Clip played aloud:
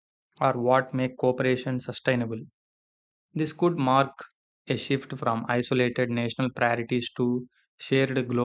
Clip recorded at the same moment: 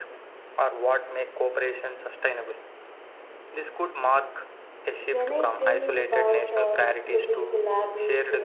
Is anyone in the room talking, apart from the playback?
Yes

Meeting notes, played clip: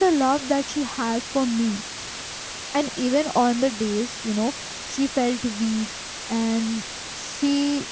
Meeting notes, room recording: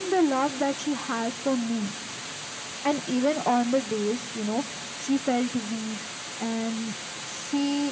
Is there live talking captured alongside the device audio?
No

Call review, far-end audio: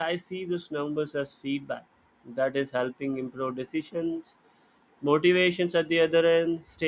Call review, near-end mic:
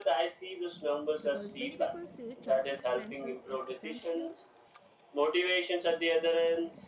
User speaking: Yes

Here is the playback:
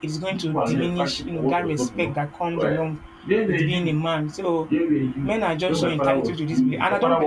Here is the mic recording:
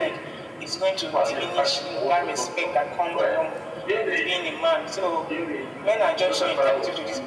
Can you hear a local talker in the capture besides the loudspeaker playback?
No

